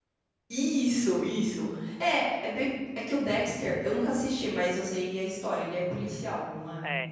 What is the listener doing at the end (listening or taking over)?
taking over